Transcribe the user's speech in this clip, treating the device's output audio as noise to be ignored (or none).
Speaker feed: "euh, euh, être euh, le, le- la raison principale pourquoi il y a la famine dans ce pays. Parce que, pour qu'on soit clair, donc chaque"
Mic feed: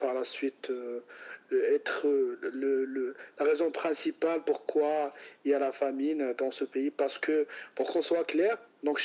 none